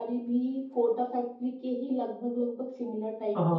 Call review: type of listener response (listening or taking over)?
taking over